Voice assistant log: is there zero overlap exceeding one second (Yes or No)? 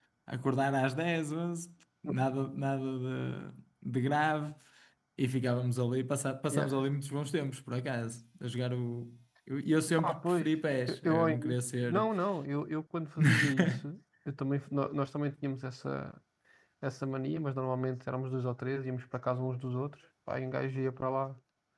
No